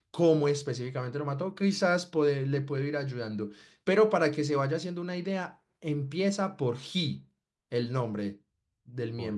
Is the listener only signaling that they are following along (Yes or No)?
No